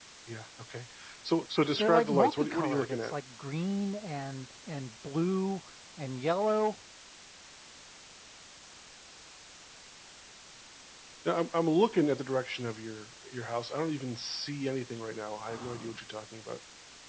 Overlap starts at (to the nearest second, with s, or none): 2 s